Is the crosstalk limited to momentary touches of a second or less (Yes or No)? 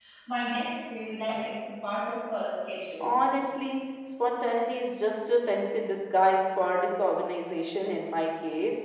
Yes